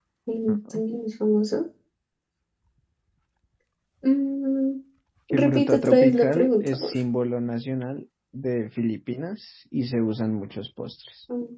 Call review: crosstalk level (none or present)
present